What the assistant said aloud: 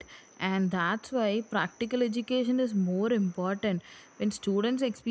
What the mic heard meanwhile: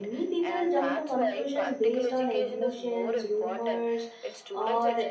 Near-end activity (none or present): present